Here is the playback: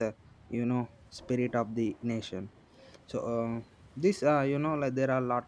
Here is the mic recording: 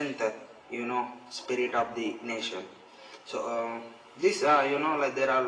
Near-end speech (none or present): none